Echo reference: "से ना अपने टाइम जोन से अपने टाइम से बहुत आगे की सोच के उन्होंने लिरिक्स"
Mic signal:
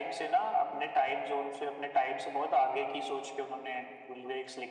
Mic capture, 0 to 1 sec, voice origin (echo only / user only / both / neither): echo only